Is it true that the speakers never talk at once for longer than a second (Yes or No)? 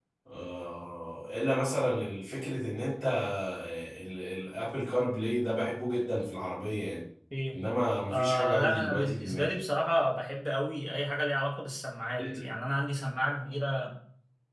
No